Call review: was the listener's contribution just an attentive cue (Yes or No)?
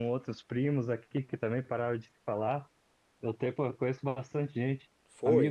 Yes